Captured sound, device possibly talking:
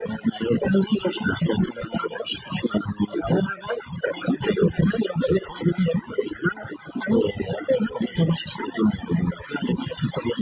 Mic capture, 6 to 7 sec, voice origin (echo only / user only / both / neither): echo only